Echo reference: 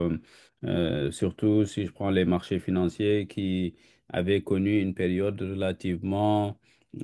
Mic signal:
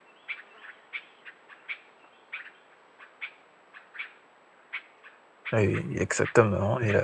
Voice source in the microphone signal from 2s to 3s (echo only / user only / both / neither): neither